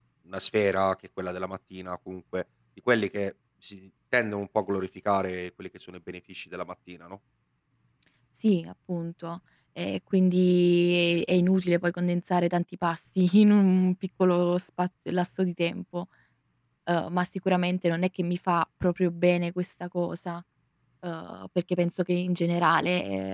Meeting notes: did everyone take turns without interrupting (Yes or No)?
Yes